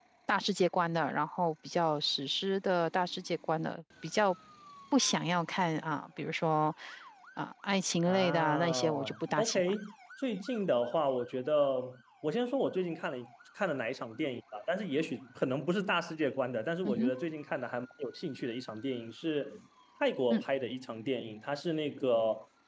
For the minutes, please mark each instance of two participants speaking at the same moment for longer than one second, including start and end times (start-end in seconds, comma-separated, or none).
8.1-9.6